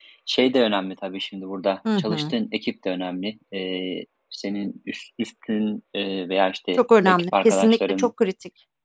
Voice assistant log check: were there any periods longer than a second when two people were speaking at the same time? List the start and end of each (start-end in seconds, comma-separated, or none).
6.8-8.1